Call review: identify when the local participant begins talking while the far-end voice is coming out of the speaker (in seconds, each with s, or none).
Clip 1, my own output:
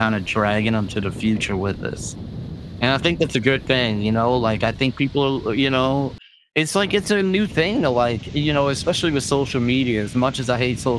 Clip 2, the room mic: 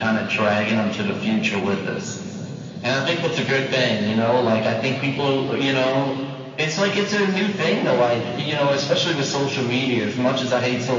none